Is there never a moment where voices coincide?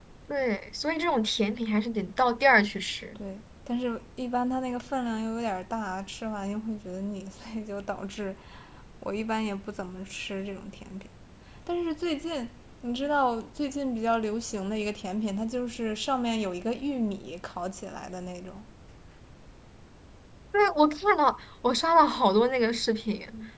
Yes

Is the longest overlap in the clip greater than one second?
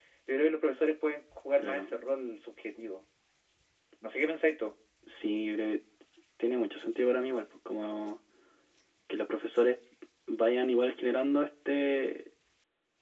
No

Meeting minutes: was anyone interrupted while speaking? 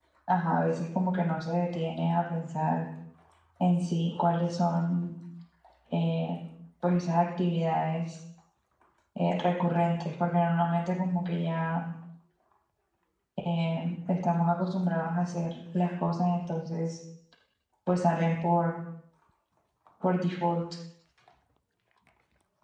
No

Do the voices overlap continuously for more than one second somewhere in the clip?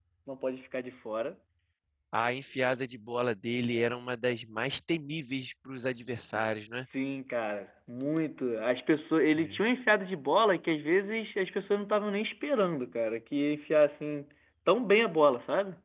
No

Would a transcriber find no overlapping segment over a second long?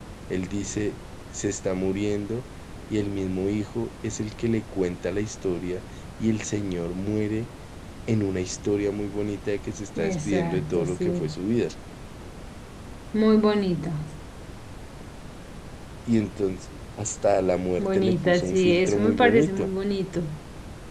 No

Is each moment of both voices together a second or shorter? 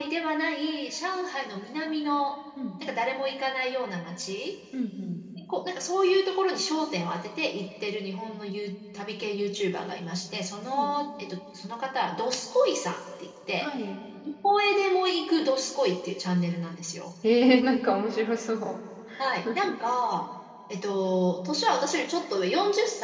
Yes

